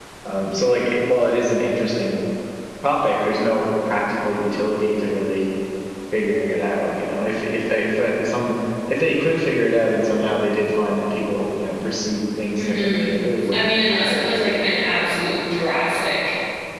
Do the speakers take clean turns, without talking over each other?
No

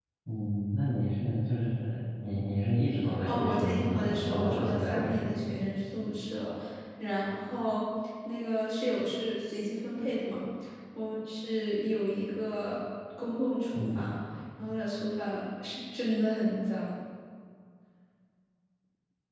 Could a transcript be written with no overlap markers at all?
No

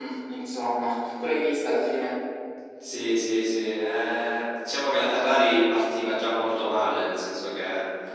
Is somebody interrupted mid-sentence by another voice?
No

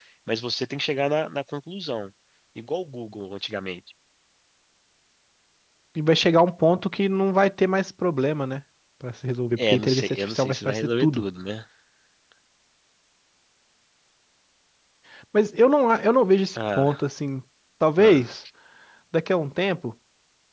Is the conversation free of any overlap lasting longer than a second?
No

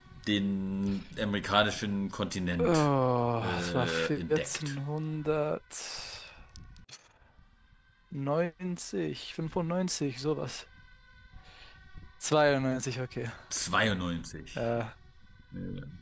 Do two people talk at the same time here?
Yes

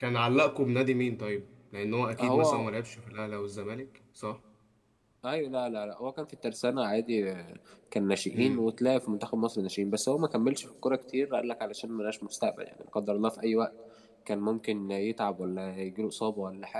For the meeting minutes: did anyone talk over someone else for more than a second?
No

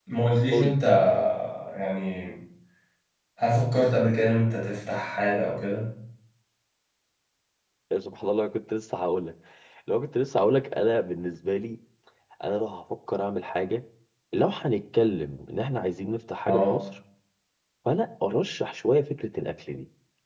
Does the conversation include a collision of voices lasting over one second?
No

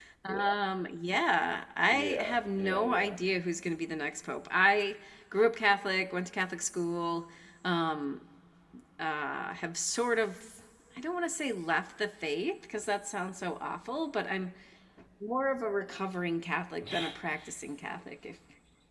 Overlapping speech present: Yes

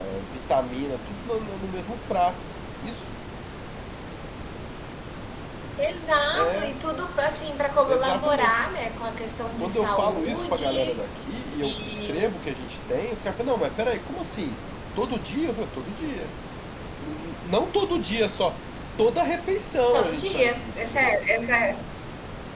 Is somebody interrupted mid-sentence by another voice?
Yes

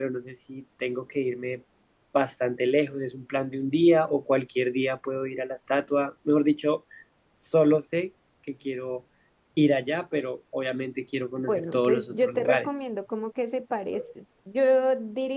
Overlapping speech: Yes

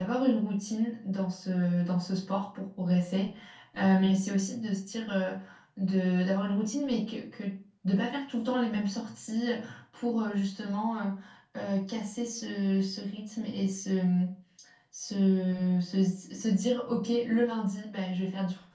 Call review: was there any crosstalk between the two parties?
No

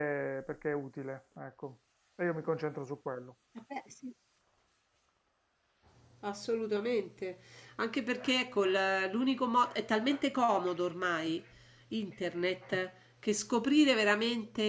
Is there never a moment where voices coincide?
Yes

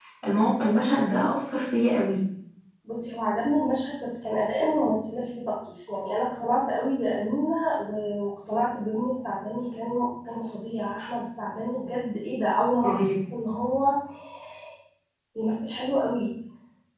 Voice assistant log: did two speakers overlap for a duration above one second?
No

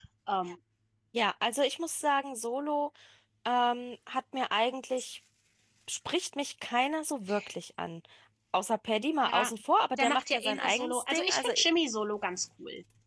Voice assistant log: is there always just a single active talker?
No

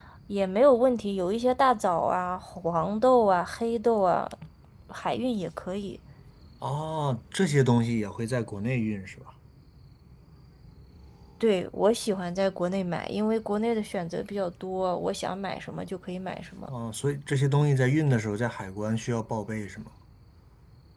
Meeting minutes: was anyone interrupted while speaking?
No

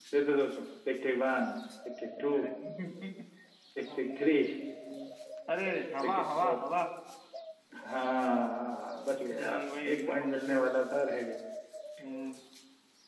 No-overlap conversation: No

